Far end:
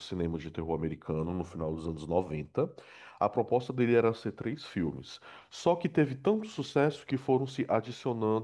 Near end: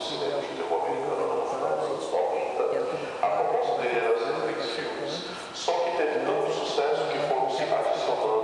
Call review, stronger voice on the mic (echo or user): echo